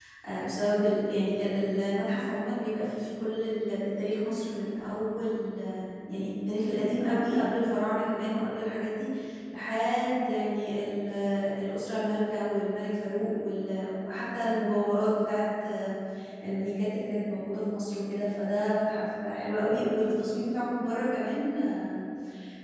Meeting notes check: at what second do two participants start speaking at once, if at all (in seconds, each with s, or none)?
none